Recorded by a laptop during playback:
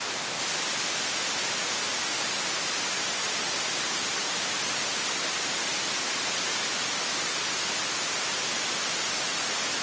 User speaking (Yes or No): No